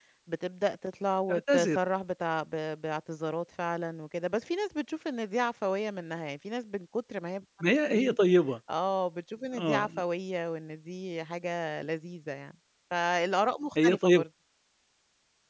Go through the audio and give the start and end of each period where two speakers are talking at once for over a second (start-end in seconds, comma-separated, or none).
none